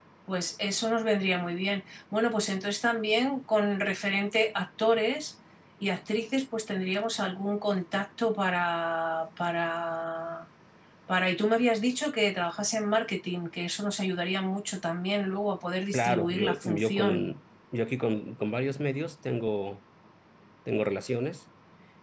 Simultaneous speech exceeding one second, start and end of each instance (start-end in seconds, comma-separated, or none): 15.9-17.2